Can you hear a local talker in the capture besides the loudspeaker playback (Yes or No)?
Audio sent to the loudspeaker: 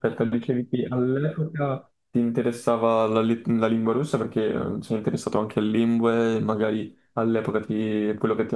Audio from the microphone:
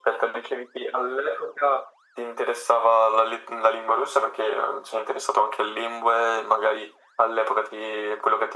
No